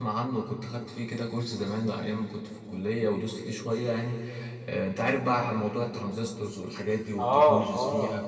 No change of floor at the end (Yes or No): No